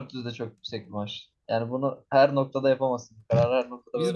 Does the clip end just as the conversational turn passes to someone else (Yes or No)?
Yes